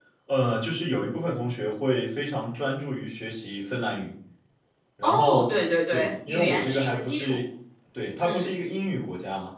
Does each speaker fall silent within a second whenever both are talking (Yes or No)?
No